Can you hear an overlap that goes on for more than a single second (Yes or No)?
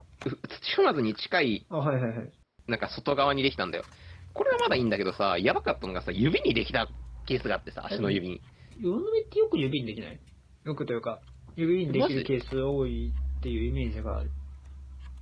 No